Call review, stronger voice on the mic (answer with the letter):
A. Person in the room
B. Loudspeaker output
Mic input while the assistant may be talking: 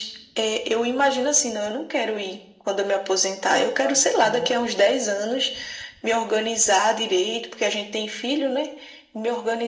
B